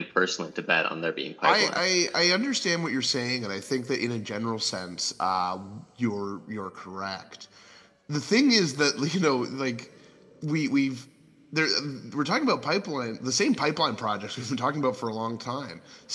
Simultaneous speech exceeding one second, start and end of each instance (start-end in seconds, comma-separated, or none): none